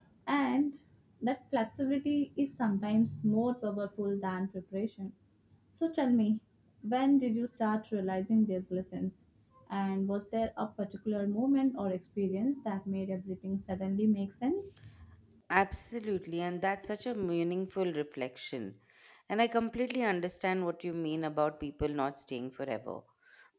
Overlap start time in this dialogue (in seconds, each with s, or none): none